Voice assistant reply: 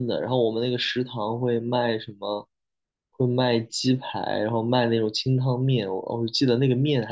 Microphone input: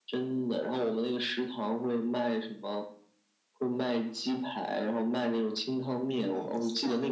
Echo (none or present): present